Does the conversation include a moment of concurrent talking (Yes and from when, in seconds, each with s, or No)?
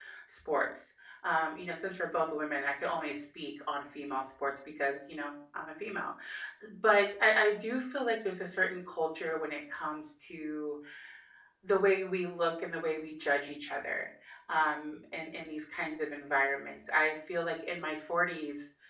No